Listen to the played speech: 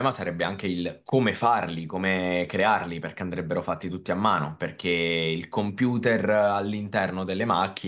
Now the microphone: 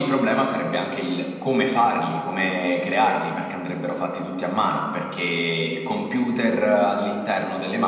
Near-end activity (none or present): none